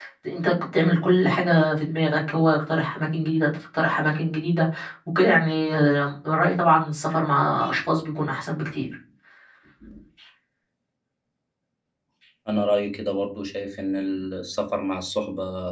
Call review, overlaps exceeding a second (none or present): none